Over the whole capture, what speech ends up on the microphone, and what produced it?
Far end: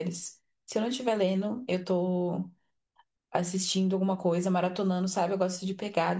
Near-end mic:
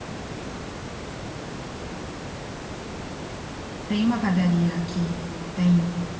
user only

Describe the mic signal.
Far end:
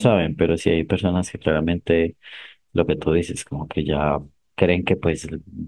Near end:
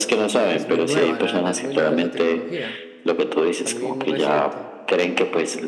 both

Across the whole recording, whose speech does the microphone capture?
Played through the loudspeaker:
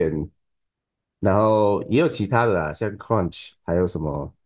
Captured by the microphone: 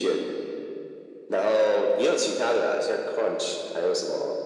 echo only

